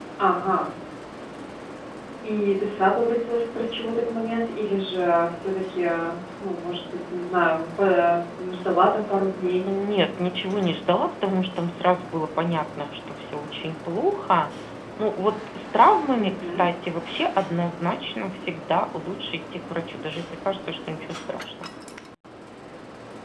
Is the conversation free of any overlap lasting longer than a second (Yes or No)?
Yes